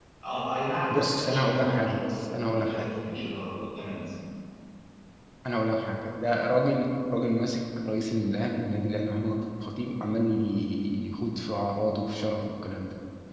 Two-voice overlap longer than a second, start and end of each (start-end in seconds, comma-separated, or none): 0.9-2.9